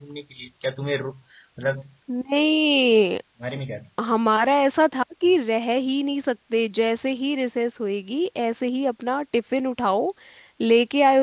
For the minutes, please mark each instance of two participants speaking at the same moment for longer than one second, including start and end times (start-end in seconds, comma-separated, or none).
none